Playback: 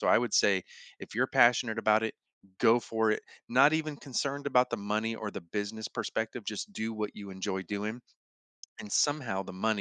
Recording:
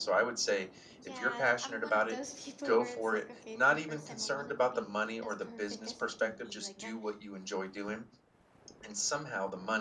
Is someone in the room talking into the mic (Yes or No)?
Yes